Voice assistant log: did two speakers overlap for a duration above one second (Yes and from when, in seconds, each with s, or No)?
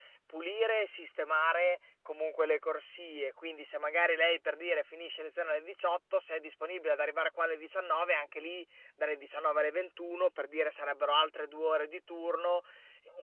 No